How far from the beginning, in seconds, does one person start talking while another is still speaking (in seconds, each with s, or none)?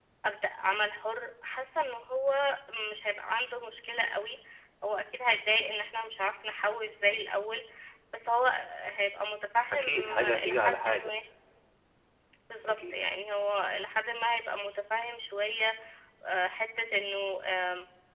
9.7 s